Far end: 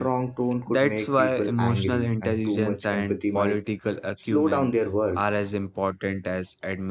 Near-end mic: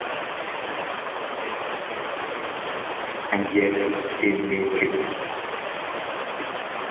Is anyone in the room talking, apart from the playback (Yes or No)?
Yes